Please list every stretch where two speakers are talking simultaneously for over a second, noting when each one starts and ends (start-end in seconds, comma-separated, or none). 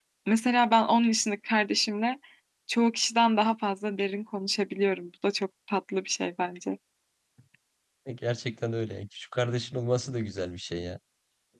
none